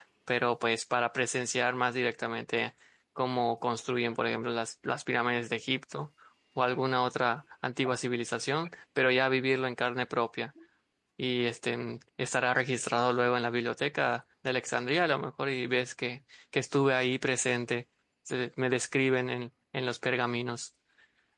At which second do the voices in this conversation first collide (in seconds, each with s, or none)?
none